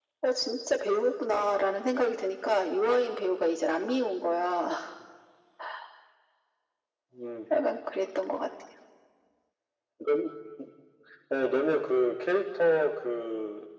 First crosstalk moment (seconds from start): none

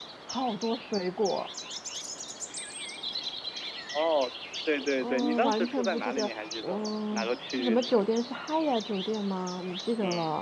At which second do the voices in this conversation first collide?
5.0 s

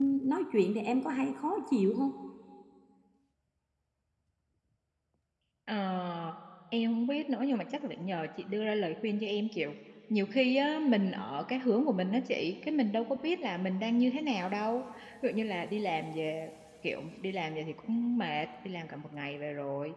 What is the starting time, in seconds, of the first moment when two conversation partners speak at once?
none

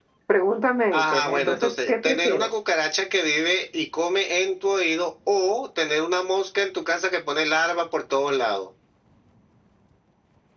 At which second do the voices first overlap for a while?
0.9 s

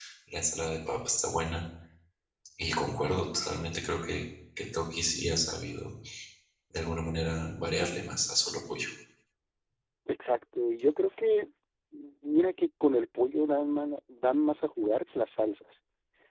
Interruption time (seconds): none

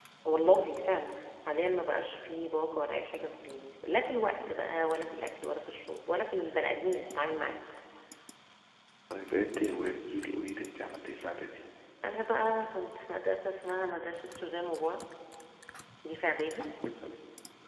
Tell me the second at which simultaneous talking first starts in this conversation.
none

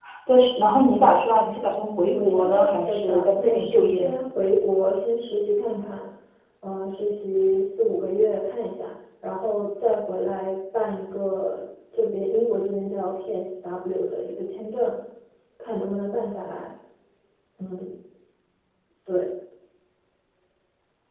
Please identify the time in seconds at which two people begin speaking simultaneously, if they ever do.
1.8 s

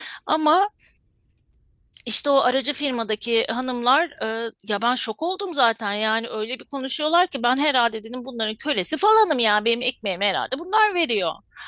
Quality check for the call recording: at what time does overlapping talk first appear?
none

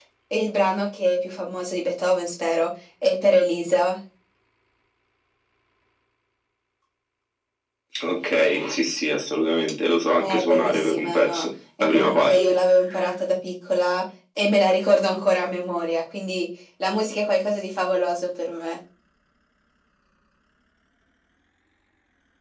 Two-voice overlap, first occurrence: 10.2 s

